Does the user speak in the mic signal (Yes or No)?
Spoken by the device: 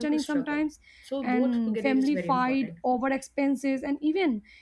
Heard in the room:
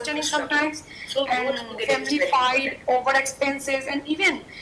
No